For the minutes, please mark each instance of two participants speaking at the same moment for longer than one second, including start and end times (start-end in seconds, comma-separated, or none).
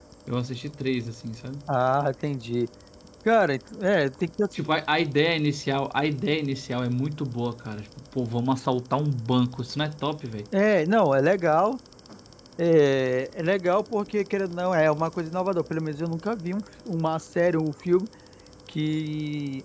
none